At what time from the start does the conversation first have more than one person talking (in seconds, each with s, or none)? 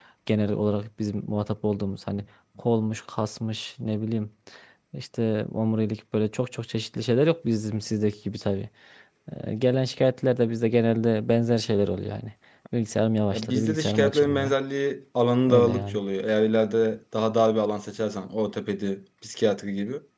13.3 s